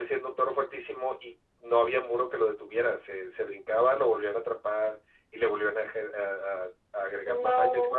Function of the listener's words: listening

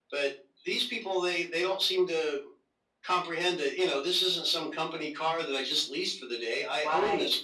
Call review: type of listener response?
taking over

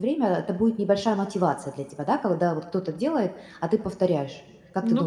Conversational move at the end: taking over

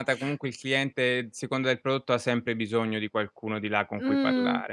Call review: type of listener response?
taking over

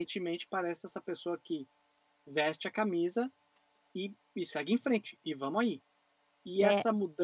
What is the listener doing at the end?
listening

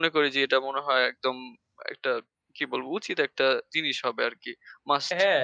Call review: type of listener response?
taking over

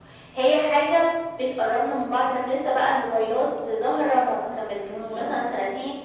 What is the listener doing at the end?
listening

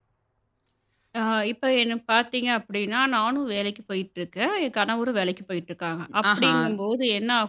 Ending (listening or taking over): listening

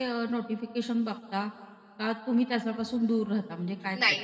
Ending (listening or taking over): taking over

